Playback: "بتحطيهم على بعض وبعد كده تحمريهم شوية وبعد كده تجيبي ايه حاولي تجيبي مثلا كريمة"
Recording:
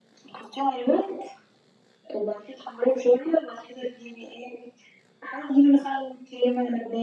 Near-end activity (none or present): none